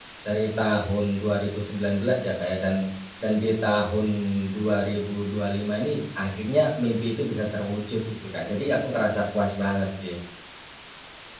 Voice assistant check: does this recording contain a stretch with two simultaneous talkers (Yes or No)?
No